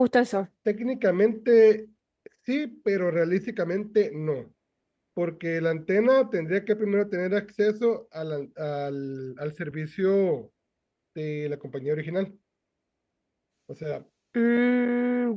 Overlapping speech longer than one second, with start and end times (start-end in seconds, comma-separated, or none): none